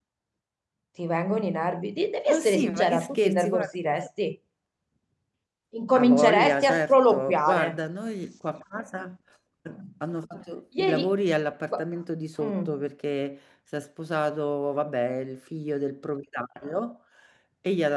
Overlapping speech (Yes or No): Yes